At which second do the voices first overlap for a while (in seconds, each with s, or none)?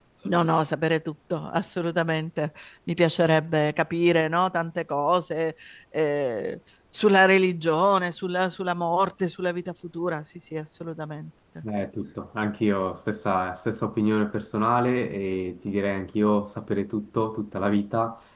none